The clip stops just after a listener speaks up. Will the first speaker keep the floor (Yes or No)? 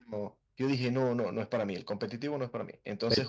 Yes